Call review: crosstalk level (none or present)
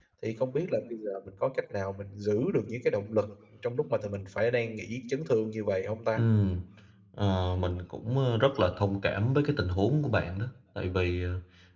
none